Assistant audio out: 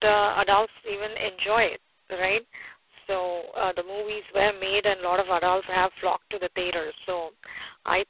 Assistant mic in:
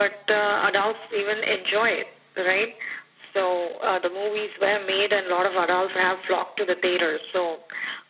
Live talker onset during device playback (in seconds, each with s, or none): none